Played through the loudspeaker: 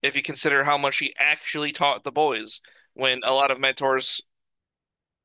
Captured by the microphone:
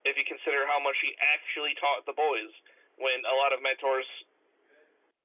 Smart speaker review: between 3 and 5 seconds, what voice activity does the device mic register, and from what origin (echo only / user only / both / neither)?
echo only